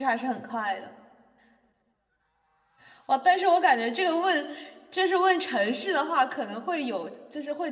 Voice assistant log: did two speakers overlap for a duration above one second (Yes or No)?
No